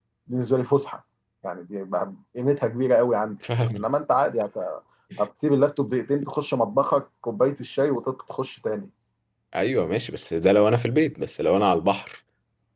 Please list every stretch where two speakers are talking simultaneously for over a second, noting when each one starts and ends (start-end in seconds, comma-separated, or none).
none